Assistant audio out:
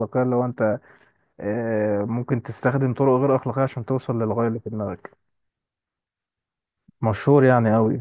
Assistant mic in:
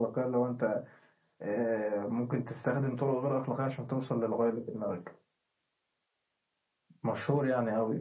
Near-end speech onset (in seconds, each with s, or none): none